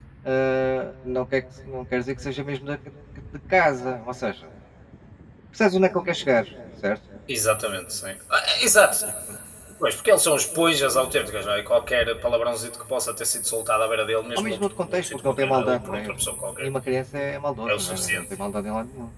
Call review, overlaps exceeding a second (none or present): present